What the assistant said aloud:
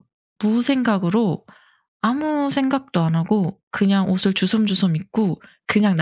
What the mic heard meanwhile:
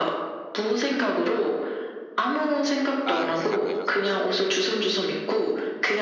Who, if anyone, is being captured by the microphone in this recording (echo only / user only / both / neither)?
both